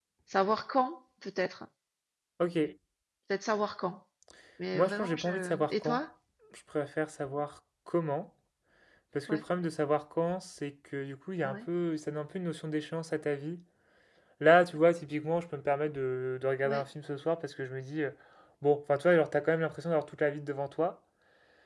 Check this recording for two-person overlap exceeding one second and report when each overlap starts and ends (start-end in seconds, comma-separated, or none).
4.7-6.0